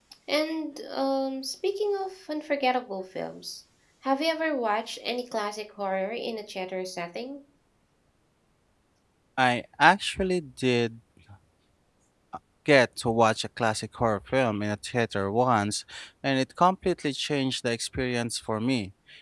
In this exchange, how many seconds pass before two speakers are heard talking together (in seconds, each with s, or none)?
none